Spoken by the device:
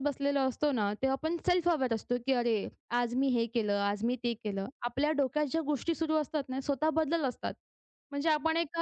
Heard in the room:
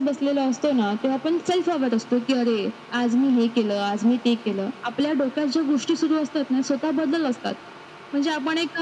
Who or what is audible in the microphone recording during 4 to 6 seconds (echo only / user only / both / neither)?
echo only